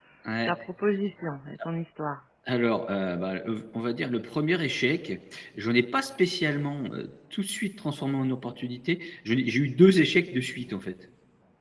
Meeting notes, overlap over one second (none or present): none